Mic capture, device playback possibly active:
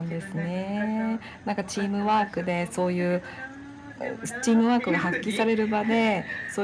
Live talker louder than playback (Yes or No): No